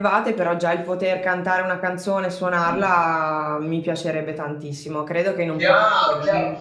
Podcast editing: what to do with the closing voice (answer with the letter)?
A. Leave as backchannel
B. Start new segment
B